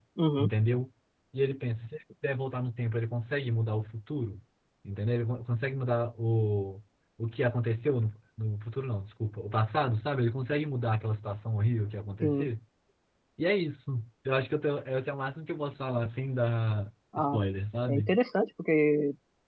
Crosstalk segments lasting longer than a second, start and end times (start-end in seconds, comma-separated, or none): none